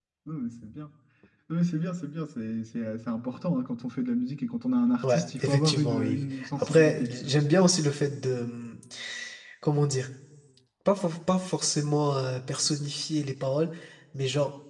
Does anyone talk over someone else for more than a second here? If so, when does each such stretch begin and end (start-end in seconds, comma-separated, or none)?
5.0-7.1